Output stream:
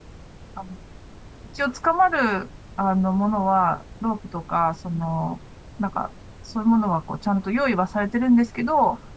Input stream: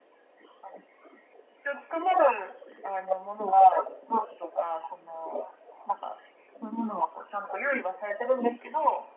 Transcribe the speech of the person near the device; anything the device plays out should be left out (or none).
none